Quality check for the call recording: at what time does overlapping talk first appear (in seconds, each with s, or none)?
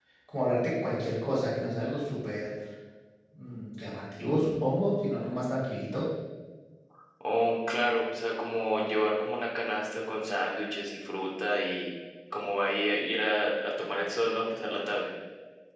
none